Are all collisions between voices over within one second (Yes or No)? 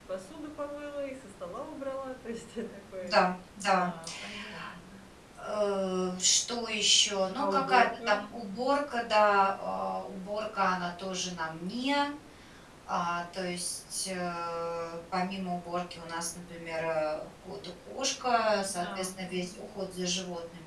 No